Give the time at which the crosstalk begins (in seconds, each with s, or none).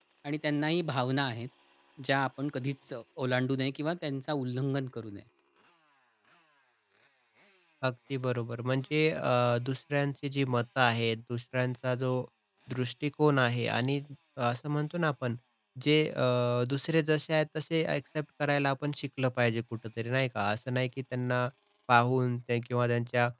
none